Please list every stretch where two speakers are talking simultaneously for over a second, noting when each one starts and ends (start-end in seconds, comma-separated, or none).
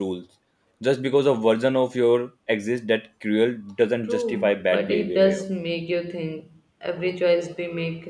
4.1-5.4